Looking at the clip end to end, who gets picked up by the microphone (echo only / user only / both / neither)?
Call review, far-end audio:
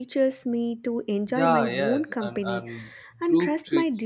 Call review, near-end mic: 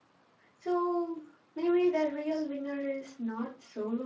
user only